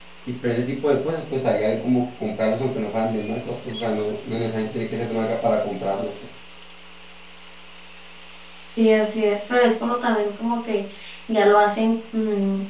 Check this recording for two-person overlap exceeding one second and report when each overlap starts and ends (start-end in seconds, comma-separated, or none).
none